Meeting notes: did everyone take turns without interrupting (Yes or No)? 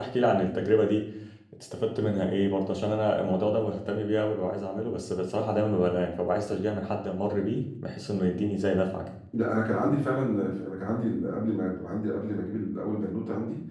Yes